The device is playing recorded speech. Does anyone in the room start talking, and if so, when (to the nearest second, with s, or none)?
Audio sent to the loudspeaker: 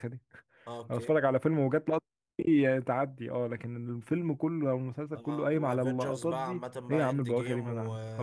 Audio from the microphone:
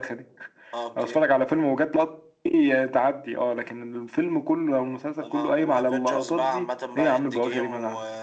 none